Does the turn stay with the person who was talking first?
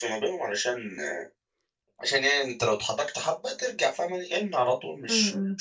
Yes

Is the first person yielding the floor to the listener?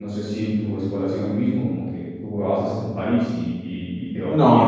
Yes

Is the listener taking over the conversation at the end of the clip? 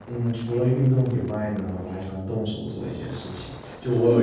No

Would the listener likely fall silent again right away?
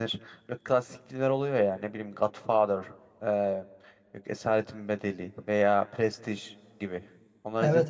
No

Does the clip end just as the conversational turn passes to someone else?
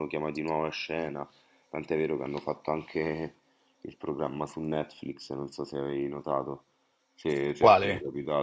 No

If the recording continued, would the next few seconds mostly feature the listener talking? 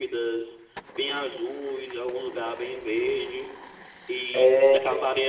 No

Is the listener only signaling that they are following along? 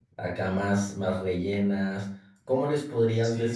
No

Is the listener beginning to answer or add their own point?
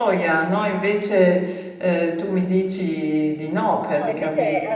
Yes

